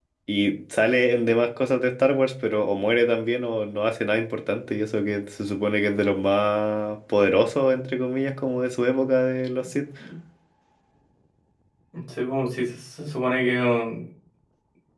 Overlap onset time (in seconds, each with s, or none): none